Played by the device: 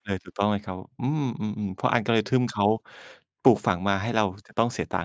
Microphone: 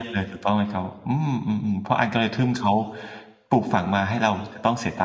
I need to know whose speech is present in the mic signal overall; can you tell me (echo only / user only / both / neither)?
echo only